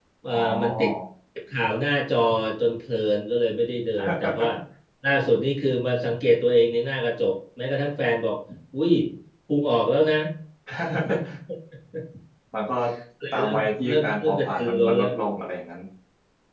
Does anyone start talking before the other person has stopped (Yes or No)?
Yes